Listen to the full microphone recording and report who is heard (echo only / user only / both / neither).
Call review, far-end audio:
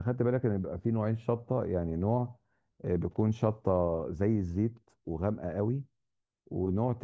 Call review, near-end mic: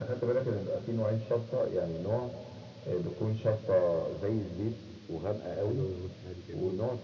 both